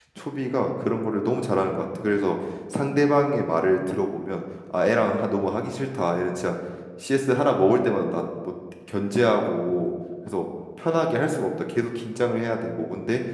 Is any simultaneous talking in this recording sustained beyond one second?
No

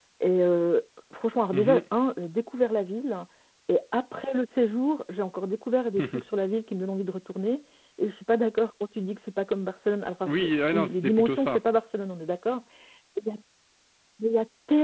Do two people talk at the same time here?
Yes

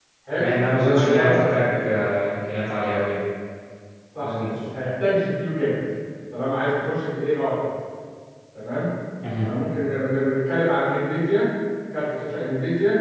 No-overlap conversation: No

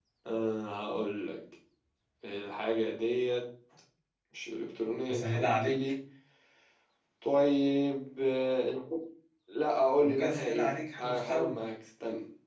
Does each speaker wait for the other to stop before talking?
No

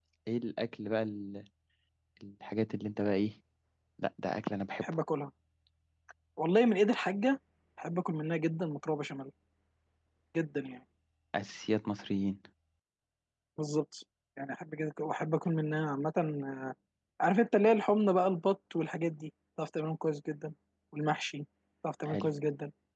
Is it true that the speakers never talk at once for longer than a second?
Yes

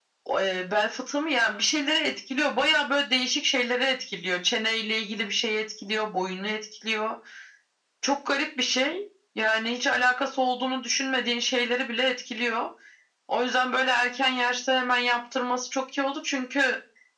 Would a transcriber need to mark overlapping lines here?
No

